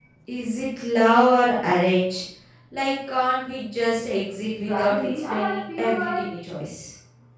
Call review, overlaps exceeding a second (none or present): present